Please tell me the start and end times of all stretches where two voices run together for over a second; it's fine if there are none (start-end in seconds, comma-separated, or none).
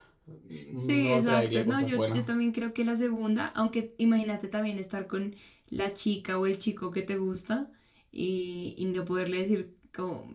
0.8-2.2